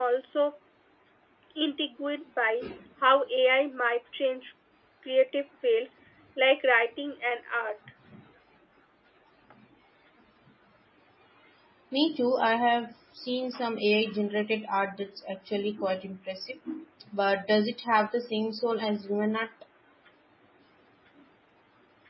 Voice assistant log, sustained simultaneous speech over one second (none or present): none